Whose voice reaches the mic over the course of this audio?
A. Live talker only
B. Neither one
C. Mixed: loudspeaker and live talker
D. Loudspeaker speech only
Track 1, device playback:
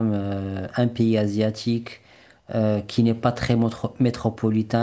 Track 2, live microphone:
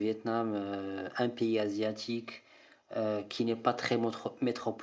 D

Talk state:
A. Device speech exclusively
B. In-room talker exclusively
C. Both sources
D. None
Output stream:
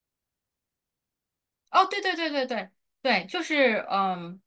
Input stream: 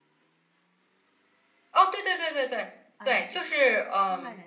C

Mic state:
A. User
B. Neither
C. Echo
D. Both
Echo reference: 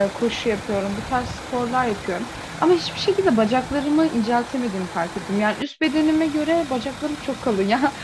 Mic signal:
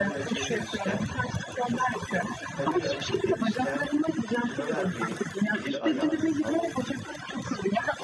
D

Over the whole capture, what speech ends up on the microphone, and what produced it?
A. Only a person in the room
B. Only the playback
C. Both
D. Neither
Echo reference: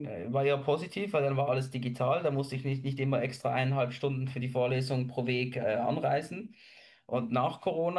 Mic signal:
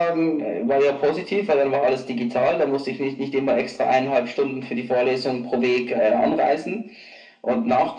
B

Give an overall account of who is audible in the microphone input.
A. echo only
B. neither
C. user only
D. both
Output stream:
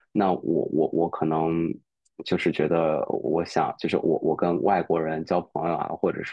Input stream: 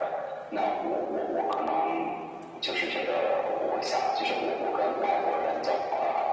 A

